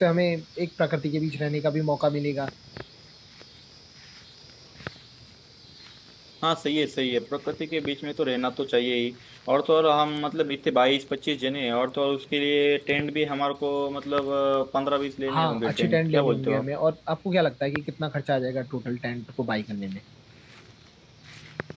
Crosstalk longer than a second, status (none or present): present